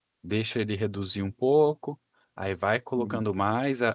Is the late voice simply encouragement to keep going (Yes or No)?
Yes